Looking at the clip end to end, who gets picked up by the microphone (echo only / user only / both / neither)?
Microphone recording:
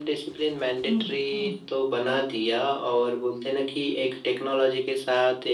both